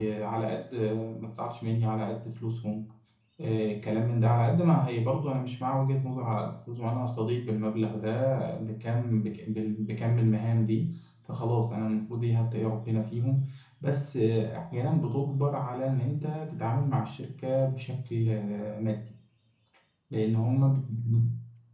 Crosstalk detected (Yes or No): No